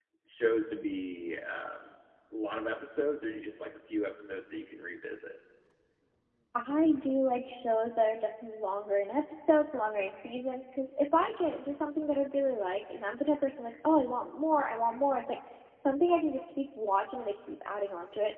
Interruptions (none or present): none